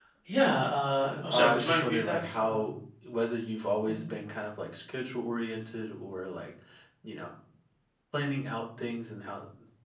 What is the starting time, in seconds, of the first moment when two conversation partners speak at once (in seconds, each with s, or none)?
1.3 s